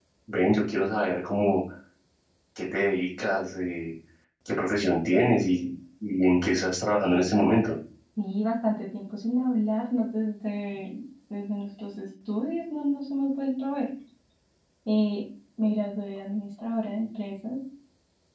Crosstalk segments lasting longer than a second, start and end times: none

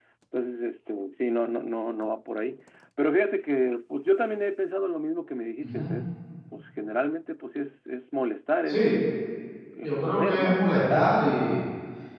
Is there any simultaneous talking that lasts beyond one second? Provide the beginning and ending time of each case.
9.8-11.1

